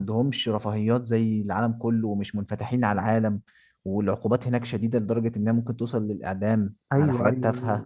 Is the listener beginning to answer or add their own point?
Yes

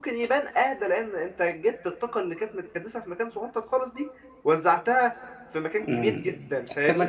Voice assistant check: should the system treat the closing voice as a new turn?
Yes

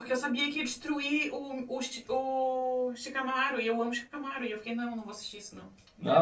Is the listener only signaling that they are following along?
Yes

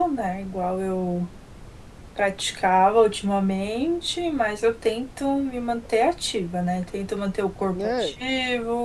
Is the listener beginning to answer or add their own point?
No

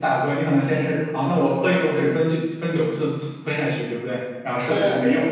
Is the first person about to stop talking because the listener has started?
No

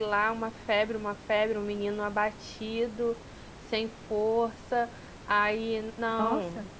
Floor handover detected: No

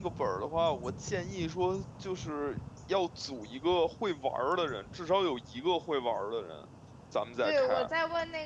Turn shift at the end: Yes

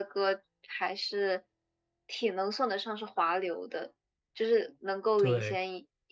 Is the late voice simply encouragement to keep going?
Yes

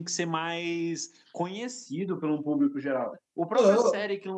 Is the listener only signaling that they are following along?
Yes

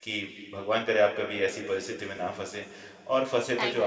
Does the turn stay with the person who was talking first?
Yes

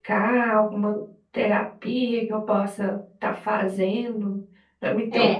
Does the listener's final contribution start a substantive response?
No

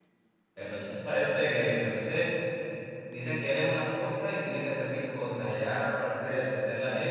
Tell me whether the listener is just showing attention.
Yes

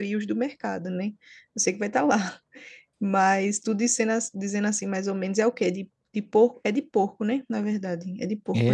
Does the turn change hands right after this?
Yes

